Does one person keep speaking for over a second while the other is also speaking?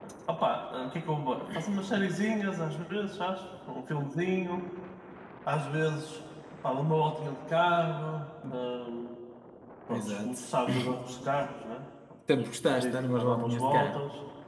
Yes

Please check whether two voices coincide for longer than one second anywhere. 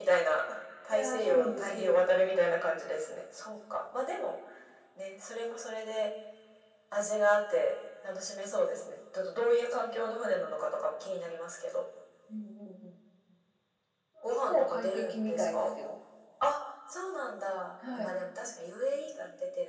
Yes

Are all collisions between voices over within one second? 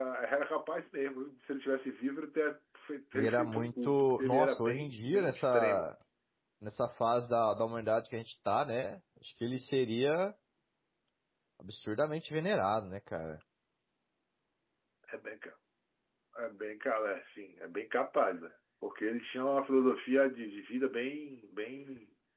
No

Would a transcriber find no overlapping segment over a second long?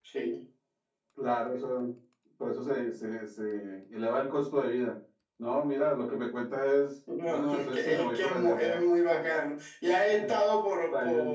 No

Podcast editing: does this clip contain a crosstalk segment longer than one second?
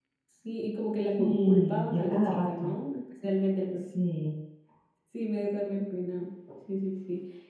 Yes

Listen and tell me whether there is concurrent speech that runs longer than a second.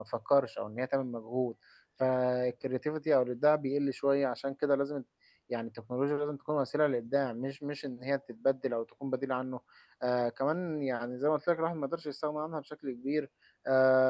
No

